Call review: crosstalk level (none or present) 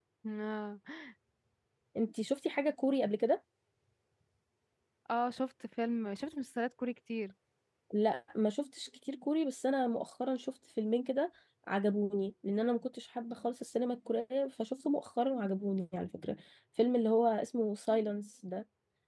none